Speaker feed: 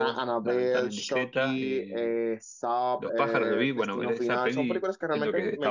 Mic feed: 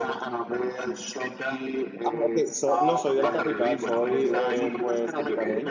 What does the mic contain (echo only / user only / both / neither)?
both